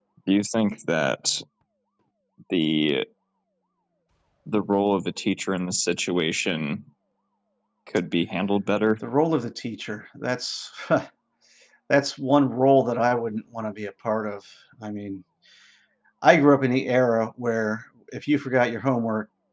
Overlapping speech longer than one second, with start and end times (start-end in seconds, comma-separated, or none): none